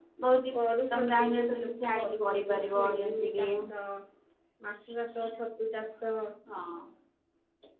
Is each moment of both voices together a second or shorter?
No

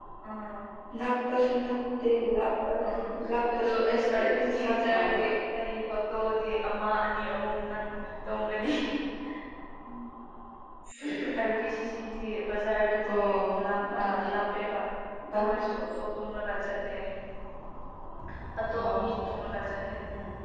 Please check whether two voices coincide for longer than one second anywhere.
Yes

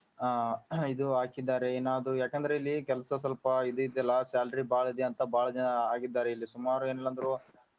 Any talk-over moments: No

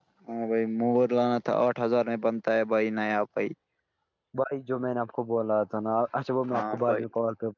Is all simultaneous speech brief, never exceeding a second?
Yes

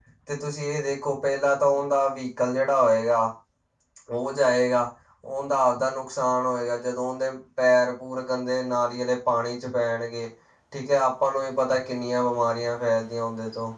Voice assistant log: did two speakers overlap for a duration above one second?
No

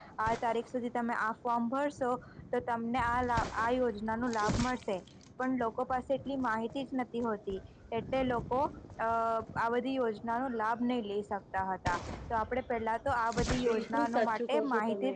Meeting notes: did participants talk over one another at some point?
Yes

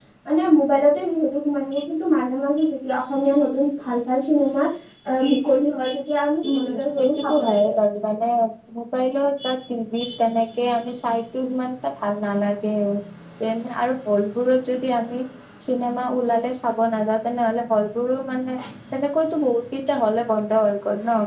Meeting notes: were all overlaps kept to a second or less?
No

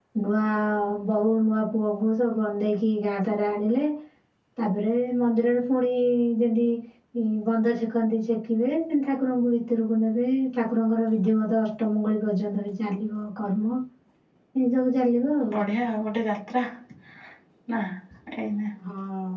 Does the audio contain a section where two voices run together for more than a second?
No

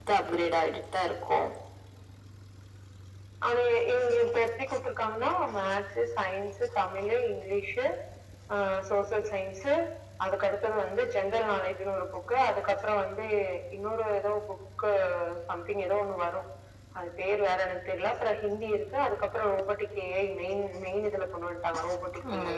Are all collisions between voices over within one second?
Yes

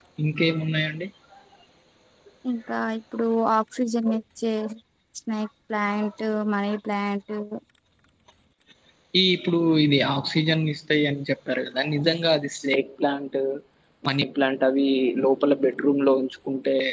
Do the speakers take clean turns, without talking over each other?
Yes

